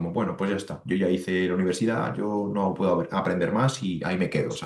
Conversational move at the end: taking over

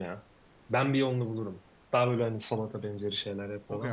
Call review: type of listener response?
taking over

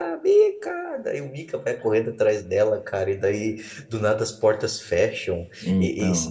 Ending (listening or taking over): listening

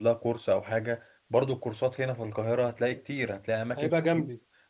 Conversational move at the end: listening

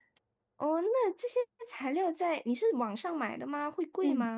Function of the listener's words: taking over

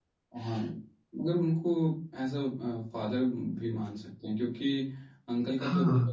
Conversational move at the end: listening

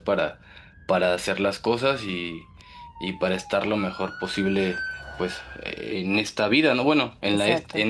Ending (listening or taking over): listening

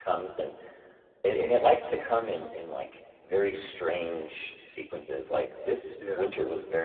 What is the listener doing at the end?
listening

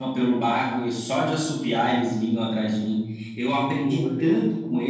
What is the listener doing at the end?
listening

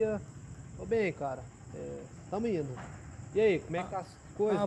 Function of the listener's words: taking over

